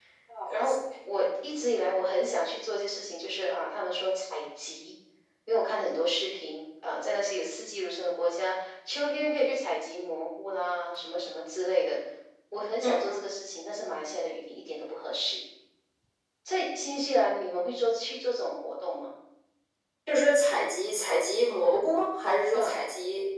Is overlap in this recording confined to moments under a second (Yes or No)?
Yes